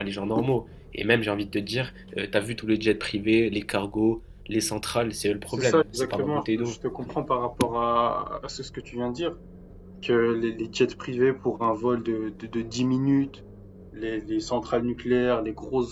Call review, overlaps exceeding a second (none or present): present